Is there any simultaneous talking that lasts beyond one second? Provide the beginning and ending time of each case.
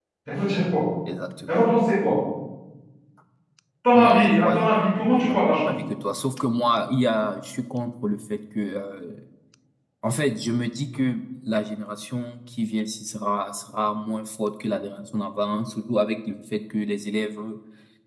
3.9-5.7

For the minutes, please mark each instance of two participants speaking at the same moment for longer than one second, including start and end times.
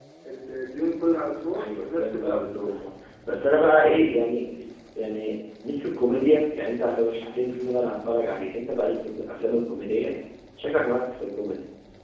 1.5-2.7

